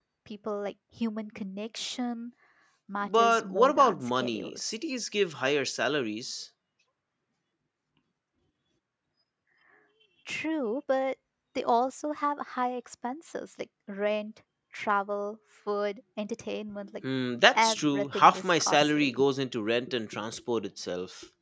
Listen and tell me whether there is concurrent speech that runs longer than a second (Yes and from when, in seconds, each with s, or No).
Yes, from 3.0 s